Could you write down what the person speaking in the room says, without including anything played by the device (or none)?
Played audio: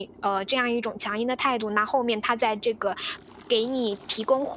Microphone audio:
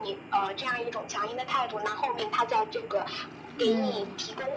嗯。